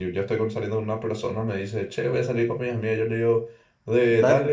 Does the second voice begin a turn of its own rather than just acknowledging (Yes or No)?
No